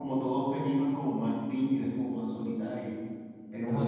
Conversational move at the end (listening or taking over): listening